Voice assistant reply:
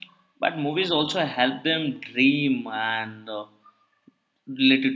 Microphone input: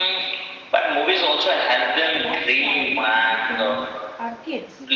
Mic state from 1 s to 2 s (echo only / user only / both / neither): echo only